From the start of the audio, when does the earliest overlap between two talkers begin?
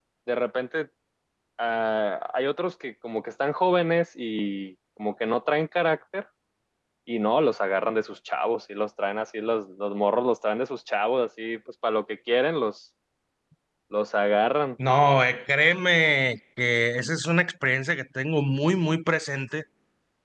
none

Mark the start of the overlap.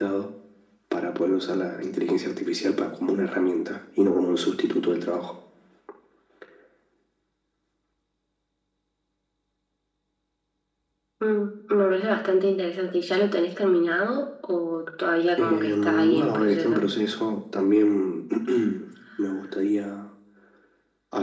15.4 s

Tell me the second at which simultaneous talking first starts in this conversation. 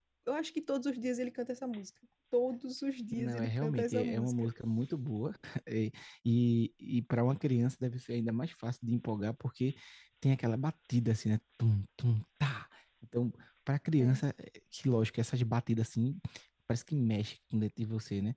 3.1 s

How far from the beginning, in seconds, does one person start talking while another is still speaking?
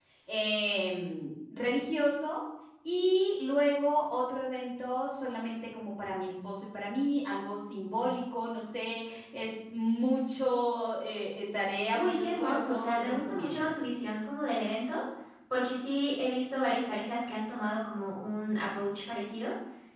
11.9 s

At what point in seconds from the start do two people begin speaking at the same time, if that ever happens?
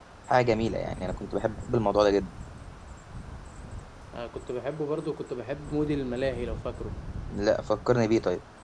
none

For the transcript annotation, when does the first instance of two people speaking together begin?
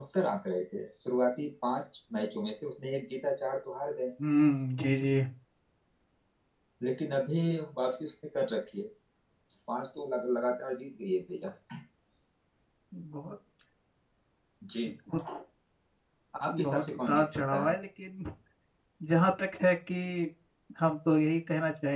16.5 s

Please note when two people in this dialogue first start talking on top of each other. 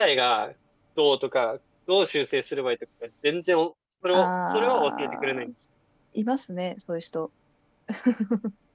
4.1 s

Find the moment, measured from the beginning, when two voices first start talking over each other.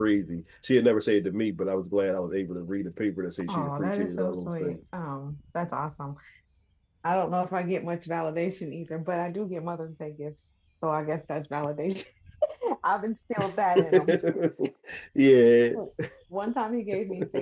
3.5 s

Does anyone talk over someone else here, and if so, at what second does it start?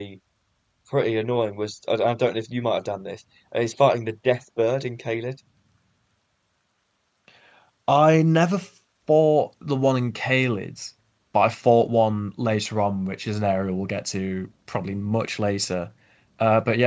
none

